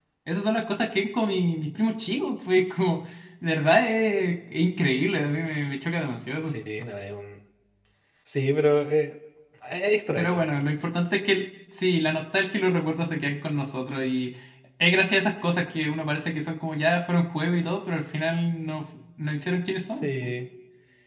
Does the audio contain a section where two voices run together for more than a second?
No

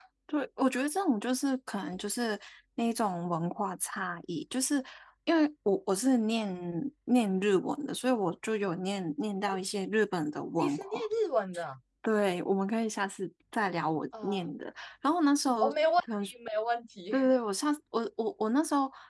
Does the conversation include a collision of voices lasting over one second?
No

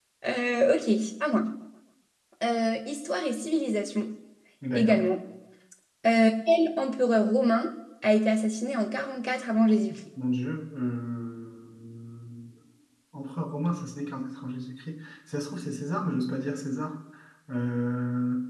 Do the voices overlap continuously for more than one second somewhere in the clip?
No

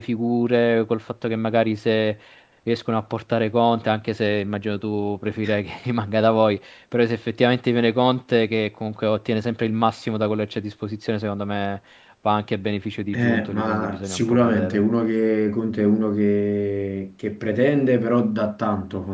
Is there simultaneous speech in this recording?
Yes, from 13.1 s

